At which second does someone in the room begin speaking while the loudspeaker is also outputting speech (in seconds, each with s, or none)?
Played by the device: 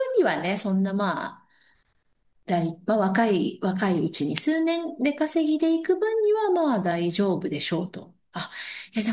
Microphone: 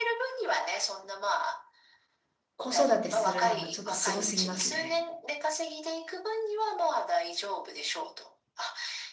2.6 s